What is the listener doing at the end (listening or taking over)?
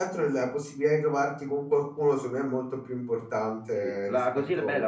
taking over